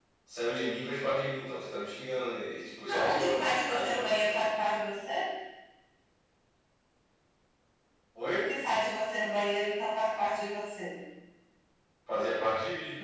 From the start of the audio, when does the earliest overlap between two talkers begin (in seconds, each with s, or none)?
2.9 s